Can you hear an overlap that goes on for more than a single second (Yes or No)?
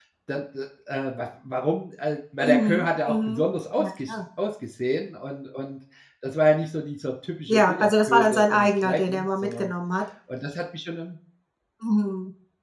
Yes